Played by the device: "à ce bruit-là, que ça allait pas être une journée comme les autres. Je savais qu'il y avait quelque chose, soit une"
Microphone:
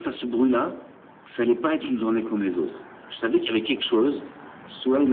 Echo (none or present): present